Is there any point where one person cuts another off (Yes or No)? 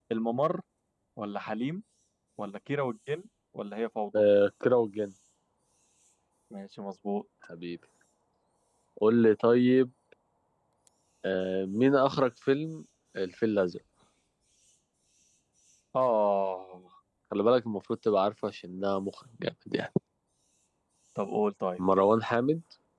No